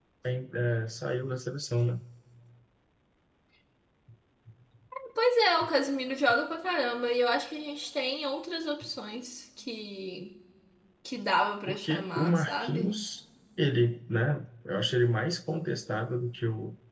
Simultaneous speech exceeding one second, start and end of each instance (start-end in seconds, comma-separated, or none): 11.7-12.9